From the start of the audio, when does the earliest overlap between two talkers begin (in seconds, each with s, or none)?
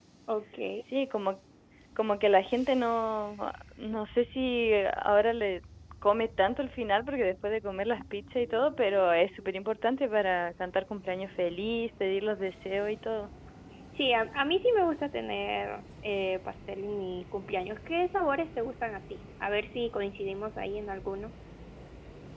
none